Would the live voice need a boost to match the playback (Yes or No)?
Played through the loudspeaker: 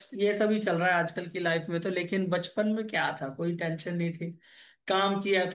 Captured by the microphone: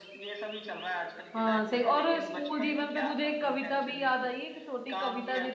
No